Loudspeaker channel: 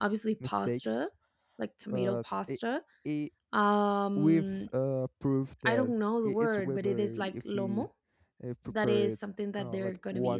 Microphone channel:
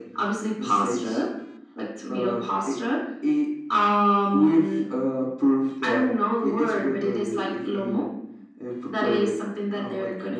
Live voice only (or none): none